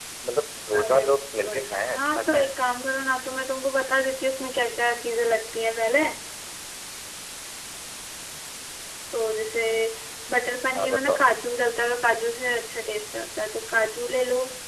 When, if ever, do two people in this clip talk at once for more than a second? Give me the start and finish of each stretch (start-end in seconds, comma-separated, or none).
0.7-2.5